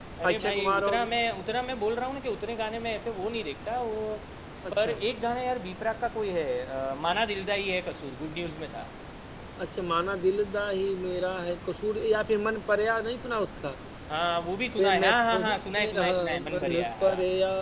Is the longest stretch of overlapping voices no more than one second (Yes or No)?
No